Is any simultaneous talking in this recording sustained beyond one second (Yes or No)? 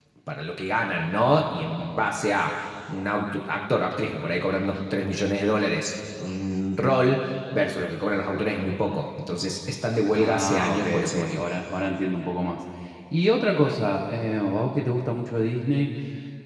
Yes